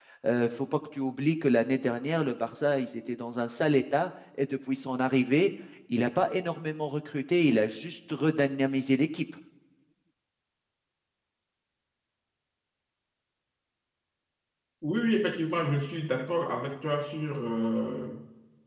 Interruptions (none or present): none